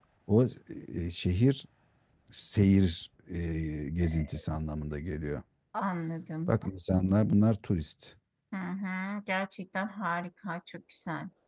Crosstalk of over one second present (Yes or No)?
No